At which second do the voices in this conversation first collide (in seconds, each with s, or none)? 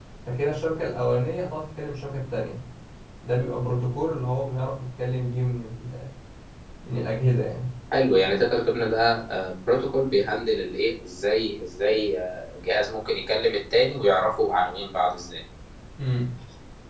none